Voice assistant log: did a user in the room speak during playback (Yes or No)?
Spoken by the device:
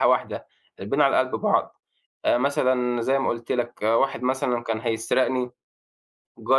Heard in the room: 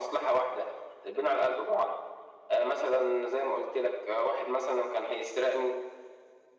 No